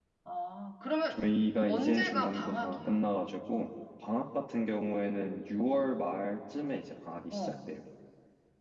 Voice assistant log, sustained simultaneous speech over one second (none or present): present